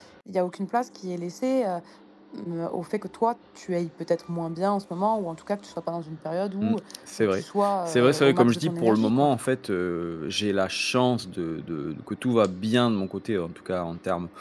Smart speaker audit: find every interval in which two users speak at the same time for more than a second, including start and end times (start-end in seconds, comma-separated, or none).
7.9-9.3